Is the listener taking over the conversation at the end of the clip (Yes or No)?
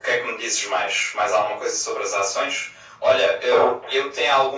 No